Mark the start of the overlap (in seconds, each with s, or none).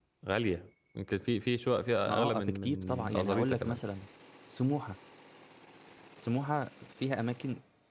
2.1 s